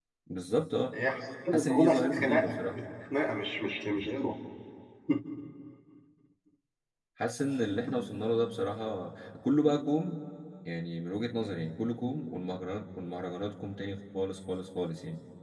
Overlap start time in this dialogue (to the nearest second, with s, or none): 2 s